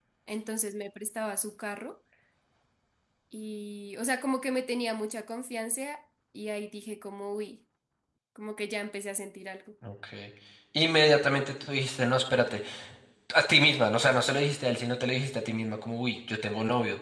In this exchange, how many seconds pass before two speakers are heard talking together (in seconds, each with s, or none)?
none